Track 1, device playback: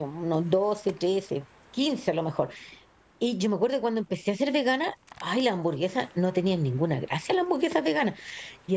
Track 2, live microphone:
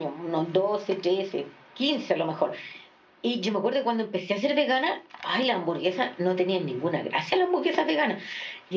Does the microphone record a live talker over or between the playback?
No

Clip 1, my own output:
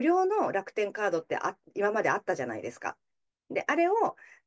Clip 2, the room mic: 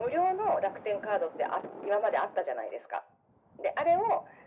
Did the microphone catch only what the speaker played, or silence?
Yes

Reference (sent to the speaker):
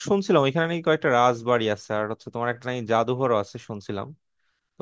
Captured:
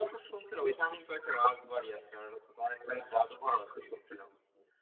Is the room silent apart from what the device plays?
Yes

